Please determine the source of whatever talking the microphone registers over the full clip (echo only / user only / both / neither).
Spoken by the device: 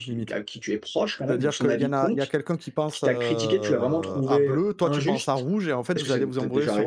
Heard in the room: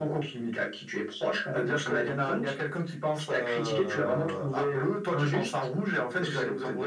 echo only